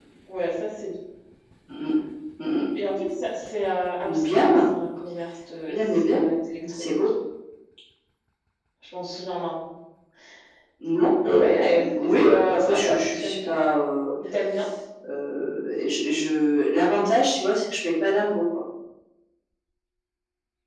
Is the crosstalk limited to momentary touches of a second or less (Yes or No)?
No